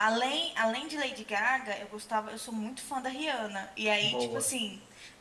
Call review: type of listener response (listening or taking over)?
listening